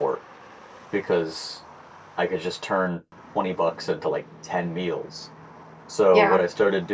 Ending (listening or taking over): listening